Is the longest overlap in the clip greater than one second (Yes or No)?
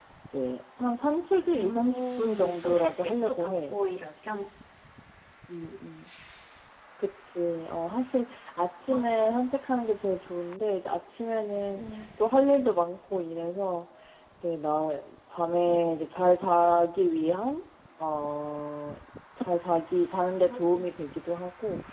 Yes